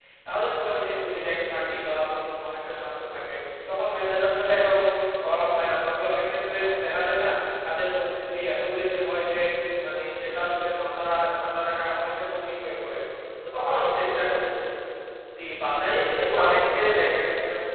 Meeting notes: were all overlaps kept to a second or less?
No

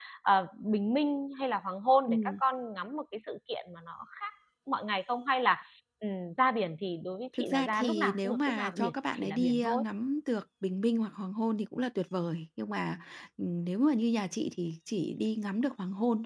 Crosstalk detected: Yes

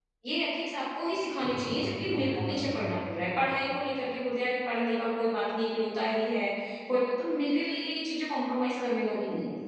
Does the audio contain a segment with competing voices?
Yes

